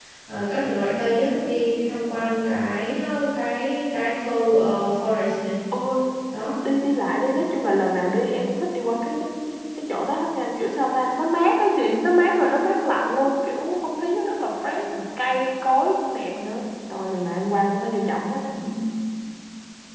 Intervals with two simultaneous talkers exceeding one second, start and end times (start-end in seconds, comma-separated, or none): none